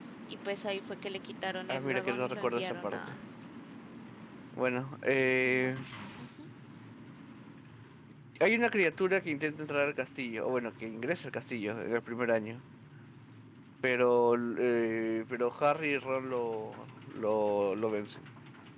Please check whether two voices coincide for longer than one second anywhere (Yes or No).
Yes